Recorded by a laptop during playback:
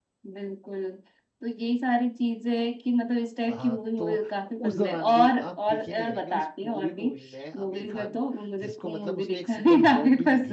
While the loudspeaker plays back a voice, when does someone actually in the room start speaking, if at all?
3.5 s

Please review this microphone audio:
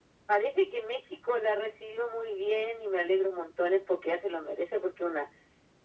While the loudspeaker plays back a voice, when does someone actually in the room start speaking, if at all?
none

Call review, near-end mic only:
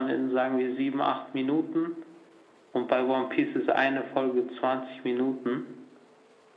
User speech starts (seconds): none

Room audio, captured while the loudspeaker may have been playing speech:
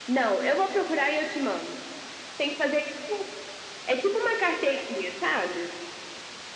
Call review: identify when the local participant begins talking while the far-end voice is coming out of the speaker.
none

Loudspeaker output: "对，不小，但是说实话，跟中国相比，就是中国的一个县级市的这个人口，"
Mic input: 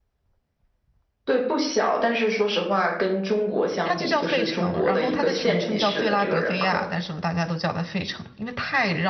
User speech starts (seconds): 3.8 s

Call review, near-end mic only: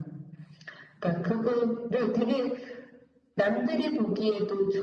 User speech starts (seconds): none

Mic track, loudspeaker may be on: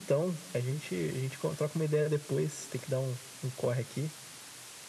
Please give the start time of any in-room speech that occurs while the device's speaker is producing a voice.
none

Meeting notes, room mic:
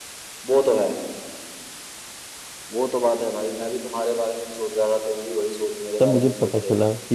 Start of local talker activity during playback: 6.0 s

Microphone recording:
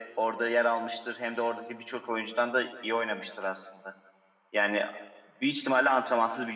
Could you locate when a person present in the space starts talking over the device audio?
none

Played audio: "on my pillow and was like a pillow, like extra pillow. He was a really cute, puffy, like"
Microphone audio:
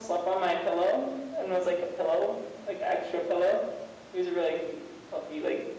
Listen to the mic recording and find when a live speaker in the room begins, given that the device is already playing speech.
none

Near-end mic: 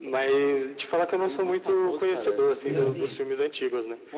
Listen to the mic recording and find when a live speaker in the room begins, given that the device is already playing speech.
2.6 s

